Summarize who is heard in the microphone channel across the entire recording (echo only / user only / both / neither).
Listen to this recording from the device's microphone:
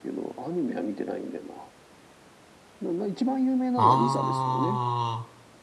both